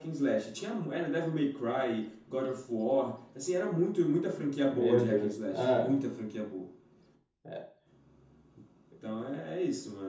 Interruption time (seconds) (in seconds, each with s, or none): 4.7 s